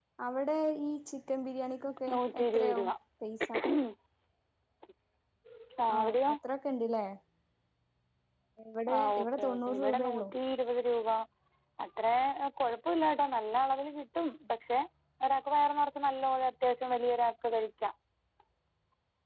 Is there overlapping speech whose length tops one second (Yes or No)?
Yes